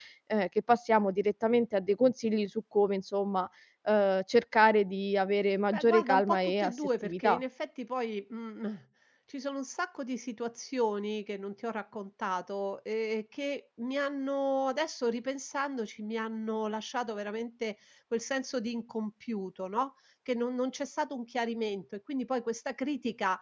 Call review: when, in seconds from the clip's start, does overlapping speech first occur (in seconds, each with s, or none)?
5.7 s